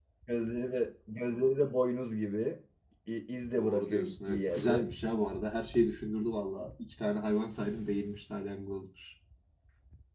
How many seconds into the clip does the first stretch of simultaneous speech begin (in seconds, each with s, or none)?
3.6 s